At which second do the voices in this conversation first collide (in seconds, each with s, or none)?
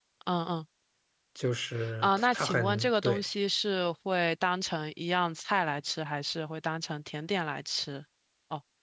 2.0 s